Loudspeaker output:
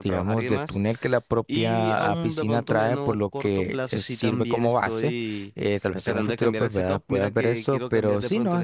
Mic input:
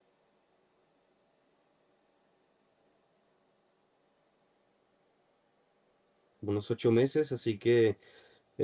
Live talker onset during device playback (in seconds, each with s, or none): 6.4 s